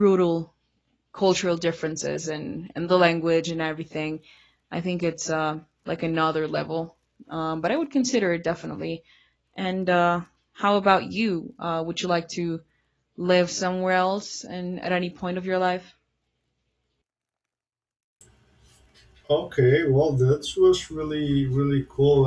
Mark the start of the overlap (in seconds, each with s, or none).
none